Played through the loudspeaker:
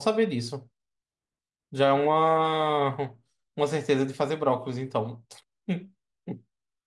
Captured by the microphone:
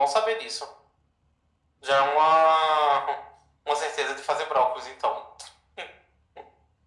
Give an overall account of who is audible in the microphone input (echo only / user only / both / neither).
echo only